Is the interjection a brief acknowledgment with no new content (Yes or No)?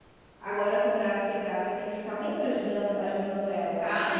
No